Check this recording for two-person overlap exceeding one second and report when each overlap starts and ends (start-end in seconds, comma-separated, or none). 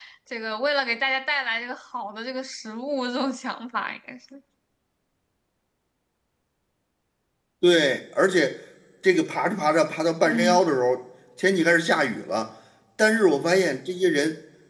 none